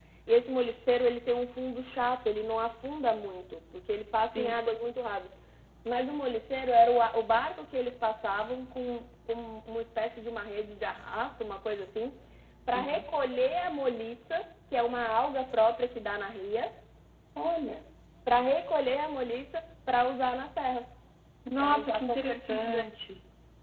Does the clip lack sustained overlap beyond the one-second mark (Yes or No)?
No